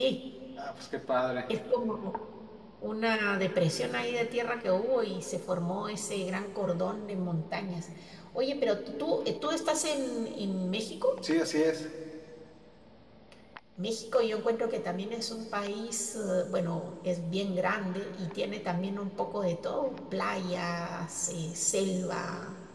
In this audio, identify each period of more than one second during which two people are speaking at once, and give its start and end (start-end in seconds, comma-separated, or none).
none